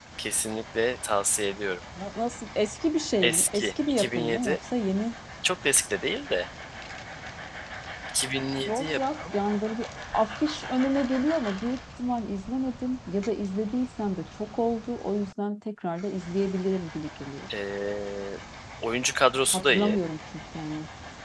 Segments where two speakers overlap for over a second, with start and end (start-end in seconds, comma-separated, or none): 3.2-4.6